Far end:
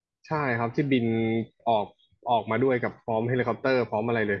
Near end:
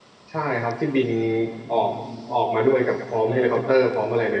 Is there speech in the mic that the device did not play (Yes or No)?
Yes